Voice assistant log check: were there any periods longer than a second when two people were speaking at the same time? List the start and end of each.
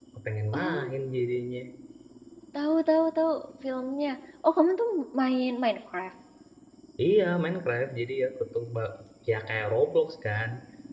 none

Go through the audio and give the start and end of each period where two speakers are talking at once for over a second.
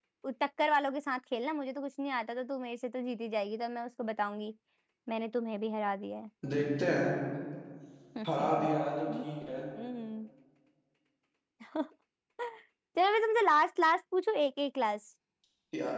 none

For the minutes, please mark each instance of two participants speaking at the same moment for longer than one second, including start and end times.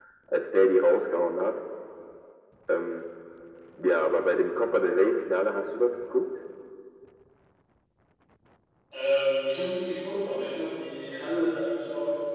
none

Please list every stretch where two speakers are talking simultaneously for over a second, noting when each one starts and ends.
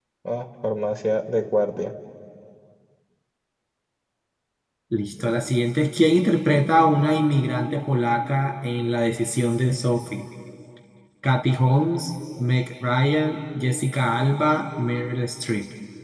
none

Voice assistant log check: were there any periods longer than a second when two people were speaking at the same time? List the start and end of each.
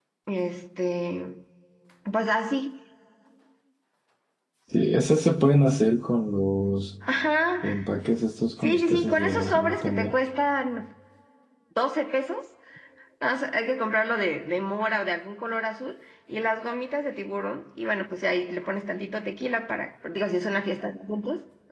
8.6-10.1

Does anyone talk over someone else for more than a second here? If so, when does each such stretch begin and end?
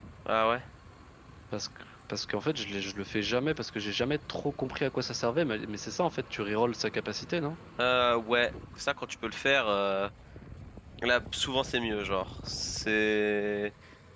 none

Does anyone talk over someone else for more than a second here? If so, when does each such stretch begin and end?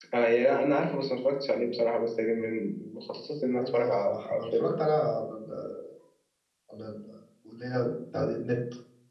3.4-4.8

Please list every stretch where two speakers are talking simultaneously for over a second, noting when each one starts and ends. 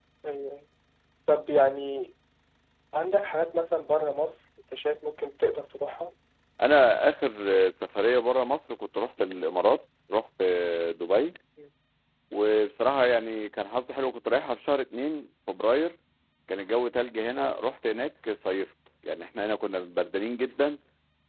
none

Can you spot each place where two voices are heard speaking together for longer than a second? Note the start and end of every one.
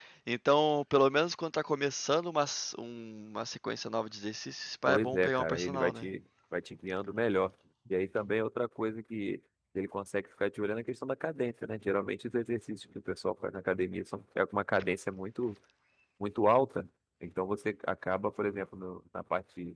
4.8-6.1

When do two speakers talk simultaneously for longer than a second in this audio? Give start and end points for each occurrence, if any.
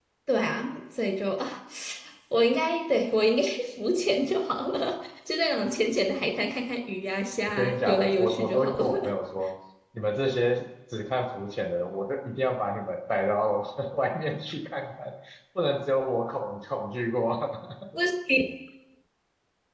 7.5-9.1

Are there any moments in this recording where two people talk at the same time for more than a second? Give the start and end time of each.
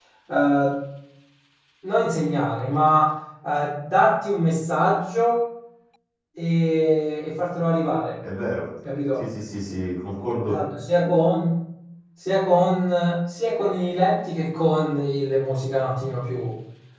none

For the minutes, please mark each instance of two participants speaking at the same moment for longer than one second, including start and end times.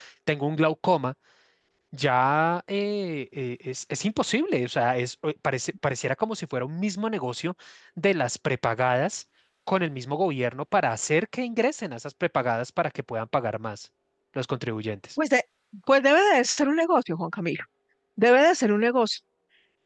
none

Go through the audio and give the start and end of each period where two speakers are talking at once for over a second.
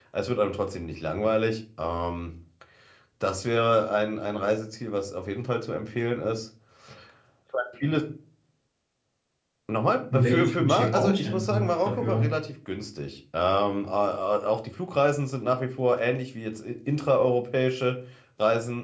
10.1-12.3

